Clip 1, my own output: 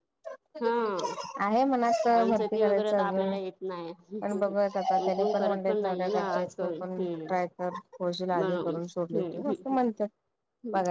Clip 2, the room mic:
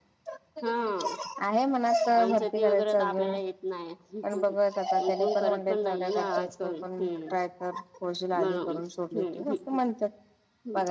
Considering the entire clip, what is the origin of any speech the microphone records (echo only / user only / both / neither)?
echo only